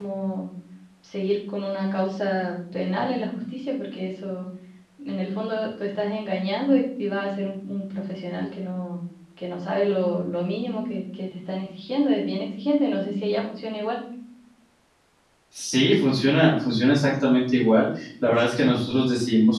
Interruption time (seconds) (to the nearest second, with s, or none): none